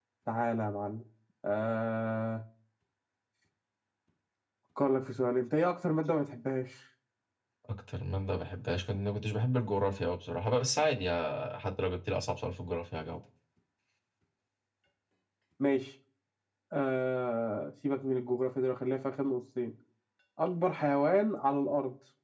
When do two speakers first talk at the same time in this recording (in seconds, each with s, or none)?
none